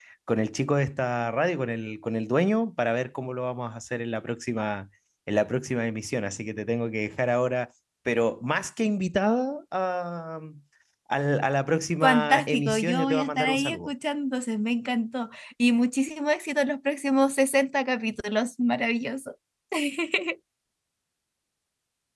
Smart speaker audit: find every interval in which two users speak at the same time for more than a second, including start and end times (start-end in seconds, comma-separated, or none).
12.0-13.9